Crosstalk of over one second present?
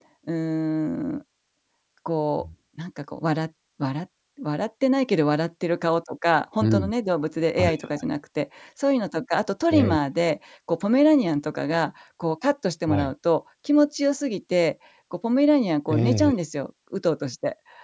No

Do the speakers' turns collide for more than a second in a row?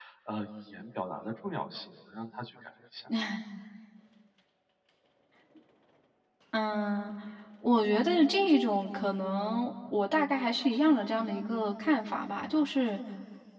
No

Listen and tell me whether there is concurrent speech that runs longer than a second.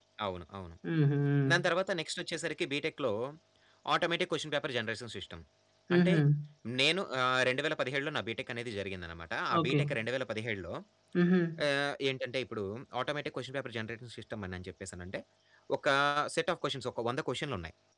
No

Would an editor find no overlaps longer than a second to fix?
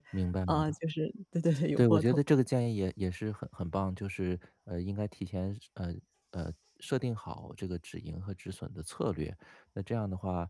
Yes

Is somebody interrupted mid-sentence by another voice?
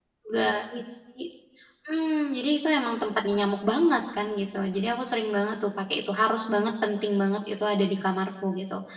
No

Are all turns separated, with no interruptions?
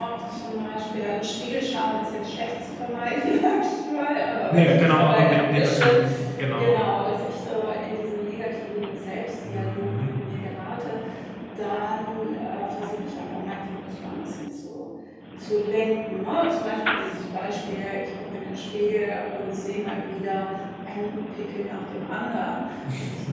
No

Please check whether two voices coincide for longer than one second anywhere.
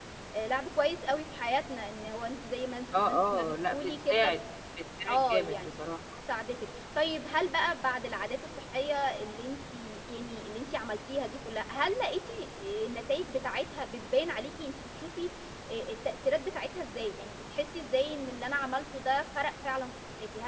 Yes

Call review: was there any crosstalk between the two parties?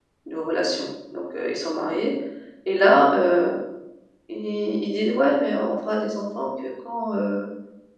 No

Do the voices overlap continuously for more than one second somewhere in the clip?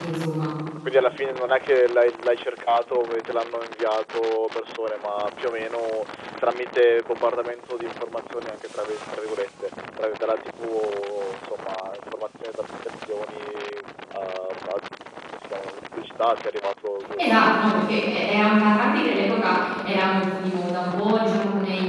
No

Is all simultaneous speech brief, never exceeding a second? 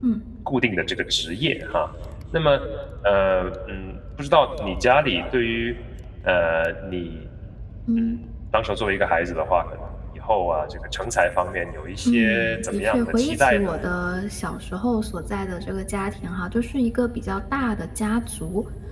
No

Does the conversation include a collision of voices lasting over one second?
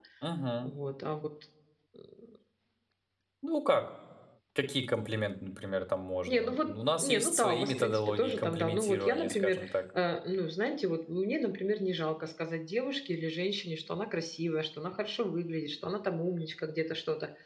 Yes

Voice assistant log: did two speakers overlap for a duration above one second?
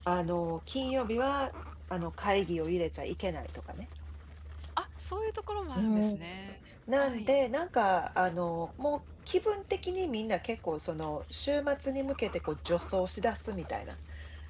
No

